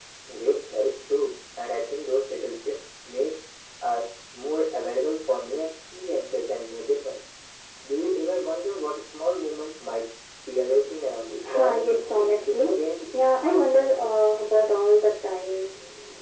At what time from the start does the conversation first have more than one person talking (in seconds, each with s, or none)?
11.4 s